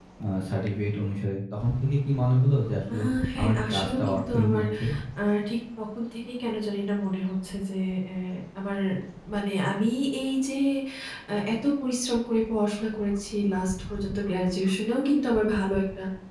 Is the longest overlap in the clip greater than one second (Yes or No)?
Yes